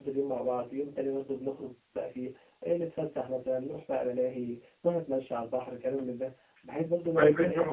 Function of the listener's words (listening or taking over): taking over